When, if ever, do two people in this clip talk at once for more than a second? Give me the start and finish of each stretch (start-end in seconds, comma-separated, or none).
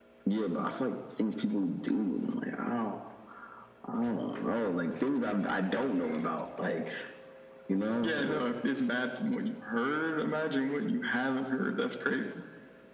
none